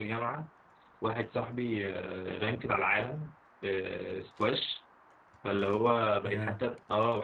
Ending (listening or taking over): listening